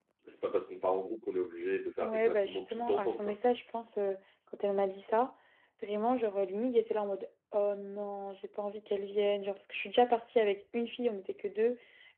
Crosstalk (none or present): present